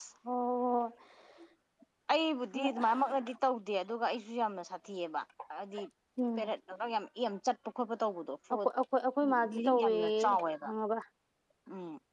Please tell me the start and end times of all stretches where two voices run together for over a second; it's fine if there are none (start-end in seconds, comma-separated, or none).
9.5-10.7